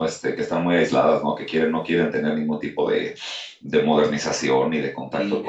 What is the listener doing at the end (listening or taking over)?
taking over